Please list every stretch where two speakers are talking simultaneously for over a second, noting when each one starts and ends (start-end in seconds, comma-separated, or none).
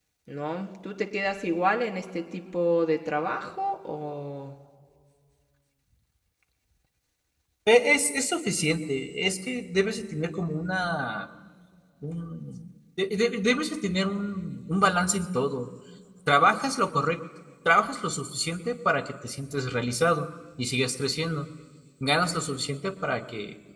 none